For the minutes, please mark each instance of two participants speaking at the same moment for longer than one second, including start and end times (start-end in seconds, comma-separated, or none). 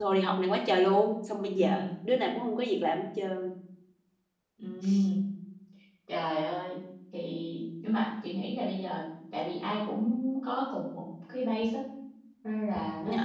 none